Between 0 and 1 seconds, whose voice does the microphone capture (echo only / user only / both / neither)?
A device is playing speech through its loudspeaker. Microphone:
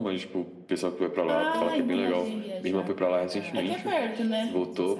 echo only